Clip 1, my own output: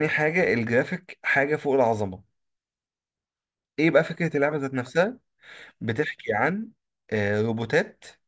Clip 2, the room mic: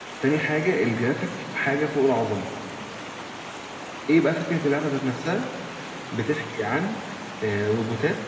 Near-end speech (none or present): none